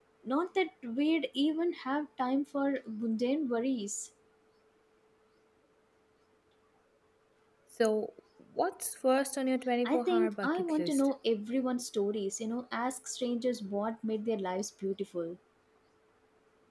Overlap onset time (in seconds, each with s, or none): 9.8 s